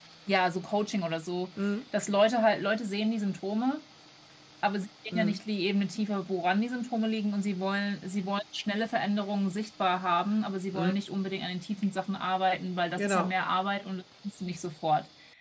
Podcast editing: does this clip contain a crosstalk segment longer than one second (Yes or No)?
No